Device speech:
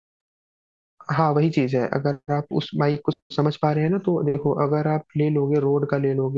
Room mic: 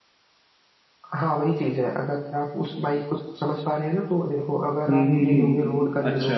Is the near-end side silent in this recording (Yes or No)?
No